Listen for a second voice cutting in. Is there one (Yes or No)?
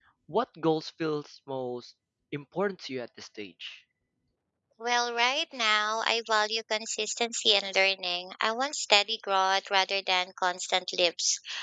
No